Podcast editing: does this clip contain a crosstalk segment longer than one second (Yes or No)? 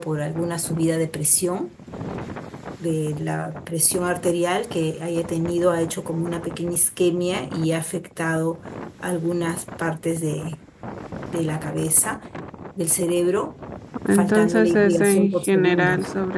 Yes